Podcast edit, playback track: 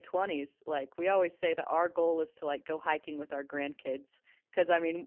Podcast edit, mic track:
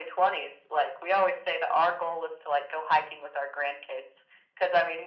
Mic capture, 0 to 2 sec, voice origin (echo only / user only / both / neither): echo only